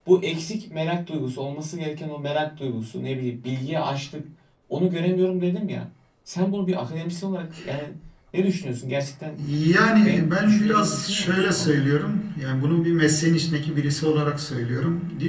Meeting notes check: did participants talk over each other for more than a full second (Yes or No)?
Yes